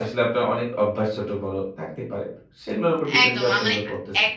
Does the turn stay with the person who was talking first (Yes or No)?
No